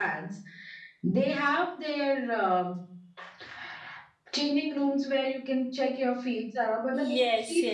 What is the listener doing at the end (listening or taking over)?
taking over